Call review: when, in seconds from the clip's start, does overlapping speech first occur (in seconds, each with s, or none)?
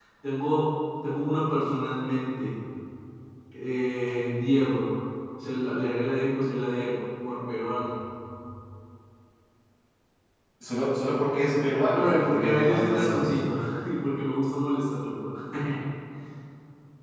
11.9 s